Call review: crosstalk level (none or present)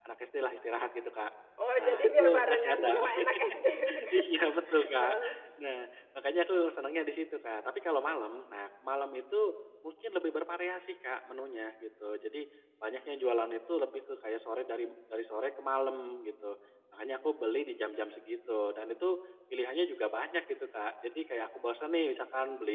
present